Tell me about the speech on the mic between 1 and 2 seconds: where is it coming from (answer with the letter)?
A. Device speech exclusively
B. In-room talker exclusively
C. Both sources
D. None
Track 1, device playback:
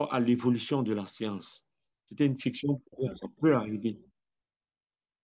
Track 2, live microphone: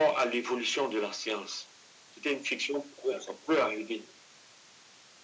A